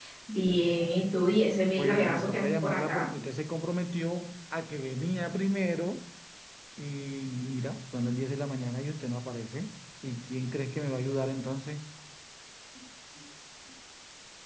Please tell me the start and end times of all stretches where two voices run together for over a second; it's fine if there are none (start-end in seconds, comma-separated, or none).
1.8-3.1